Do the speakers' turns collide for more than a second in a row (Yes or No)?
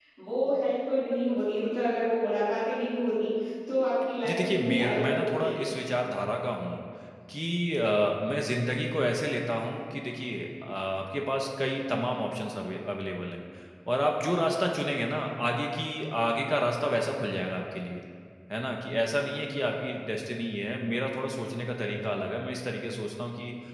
Yes